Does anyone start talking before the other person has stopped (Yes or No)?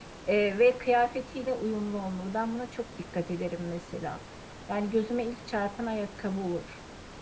No